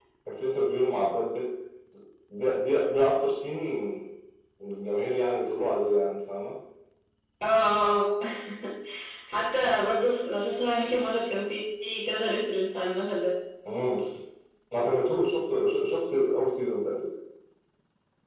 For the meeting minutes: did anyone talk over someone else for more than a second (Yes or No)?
No